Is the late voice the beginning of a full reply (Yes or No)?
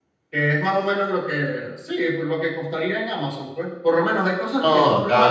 No